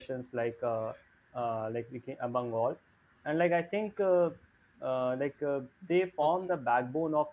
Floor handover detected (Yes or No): No